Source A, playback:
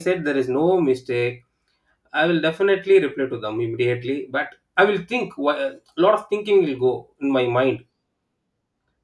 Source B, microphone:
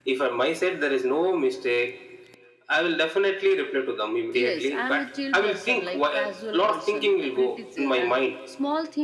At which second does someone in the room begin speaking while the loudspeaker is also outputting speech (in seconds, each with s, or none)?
4.3 s